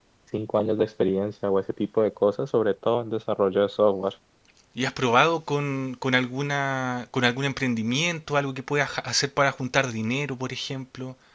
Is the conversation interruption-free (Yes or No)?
Yes